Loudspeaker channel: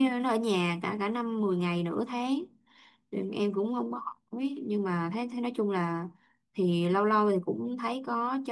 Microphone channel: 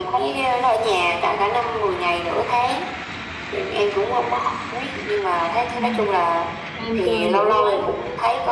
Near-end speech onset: 5.7 s

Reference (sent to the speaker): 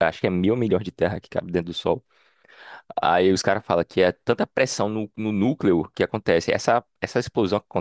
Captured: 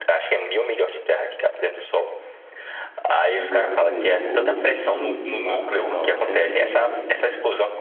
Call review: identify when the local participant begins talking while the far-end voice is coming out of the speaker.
3.3 s

